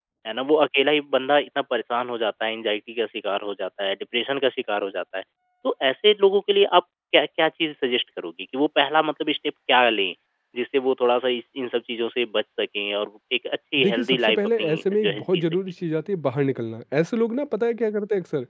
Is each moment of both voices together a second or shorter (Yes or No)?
No